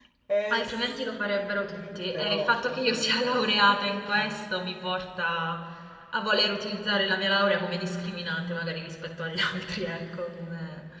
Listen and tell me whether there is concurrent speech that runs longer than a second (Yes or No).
Yes